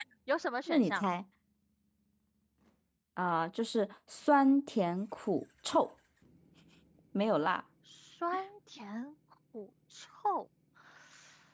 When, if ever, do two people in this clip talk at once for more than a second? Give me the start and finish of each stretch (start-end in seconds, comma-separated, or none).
none